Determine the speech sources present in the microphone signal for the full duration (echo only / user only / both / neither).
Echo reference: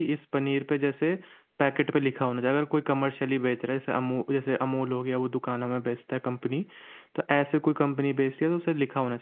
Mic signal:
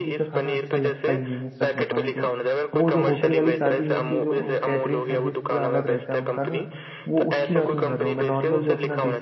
both